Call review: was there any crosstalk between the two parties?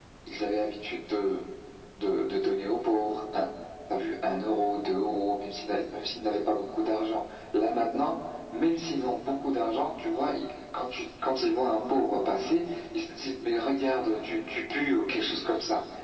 No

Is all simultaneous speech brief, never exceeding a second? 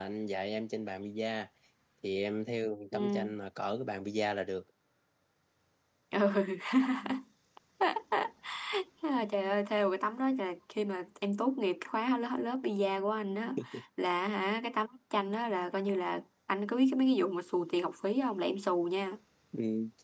Yes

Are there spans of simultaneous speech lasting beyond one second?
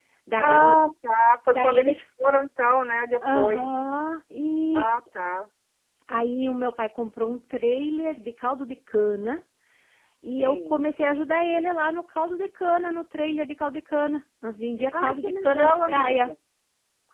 Yes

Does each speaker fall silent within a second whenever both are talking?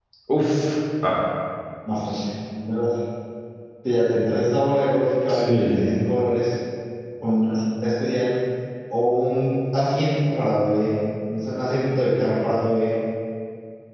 Yes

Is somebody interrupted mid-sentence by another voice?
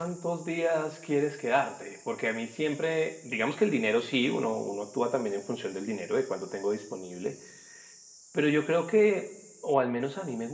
No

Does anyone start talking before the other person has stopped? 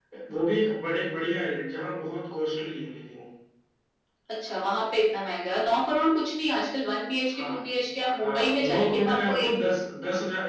Yes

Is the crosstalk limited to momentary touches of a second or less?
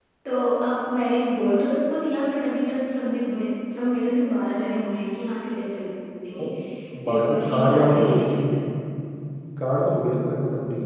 No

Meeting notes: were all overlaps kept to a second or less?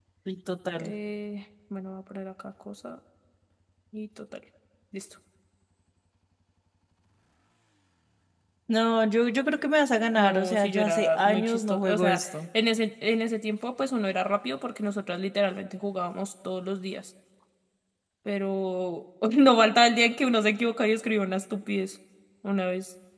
No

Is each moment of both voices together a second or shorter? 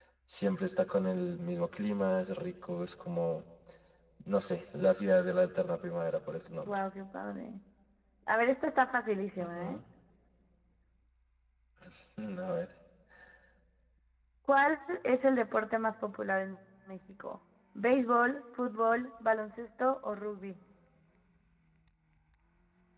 Yes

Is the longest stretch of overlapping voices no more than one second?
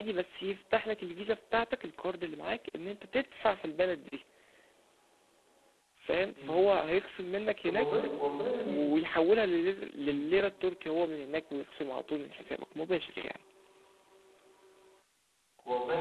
Yes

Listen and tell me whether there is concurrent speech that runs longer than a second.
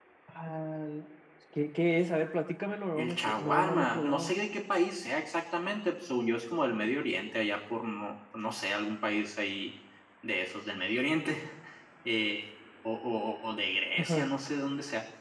Yes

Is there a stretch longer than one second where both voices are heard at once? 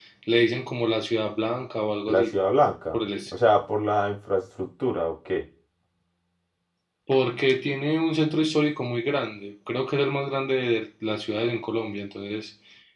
No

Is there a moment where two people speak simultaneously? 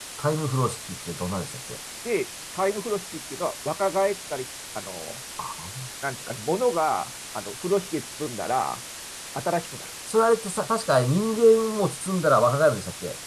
No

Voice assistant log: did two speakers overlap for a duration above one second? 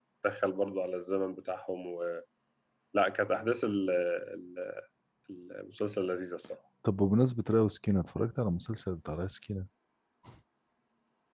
No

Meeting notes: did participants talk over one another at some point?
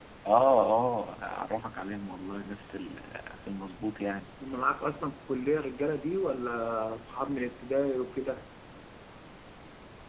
No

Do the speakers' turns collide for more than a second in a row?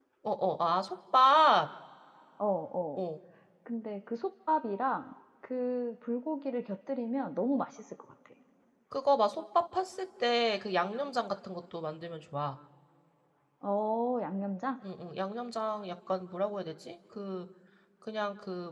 No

